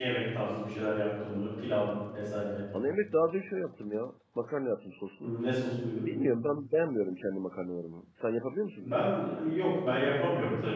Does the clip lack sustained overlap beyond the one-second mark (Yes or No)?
Yes